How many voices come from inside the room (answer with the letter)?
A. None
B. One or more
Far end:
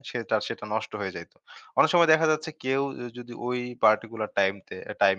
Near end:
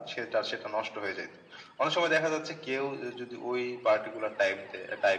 A